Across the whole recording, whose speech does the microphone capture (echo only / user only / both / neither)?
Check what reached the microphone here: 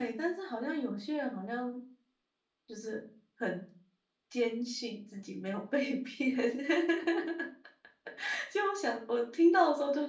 user only